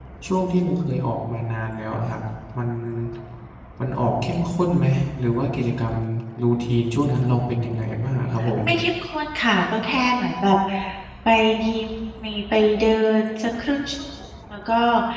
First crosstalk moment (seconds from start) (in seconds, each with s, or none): none